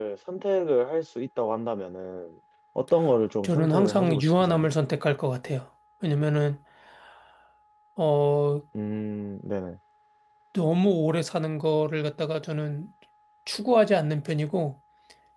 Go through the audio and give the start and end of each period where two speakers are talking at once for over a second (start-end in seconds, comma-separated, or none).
3.4-4.7